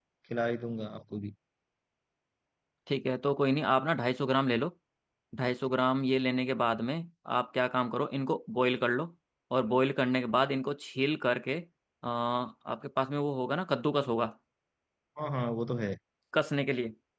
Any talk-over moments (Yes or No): No